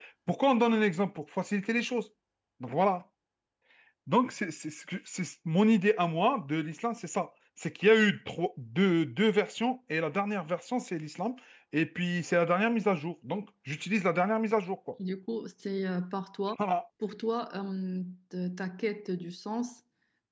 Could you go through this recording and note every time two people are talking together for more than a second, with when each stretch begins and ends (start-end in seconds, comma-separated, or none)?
none